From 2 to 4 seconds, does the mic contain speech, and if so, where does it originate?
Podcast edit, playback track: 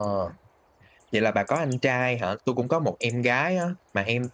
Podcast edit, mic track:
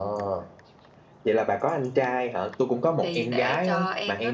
both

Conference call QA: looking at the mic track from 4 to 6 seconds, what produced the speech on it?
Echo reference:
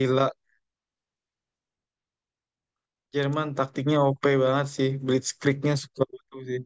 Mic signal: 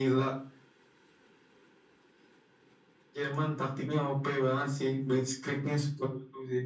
echo only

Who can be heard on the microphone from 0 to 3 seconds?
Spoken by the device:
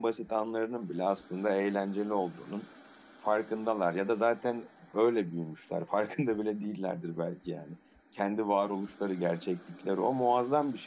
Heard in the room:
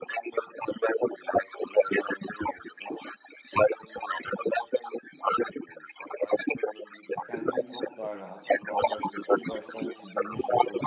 echo only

